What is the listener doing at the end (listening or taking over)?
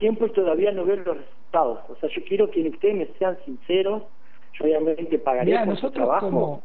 taking over